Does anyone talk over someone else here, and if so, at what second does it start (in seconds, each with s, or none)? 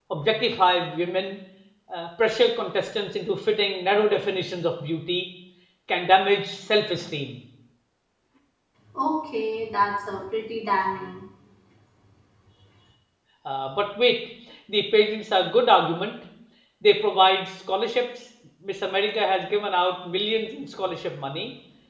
none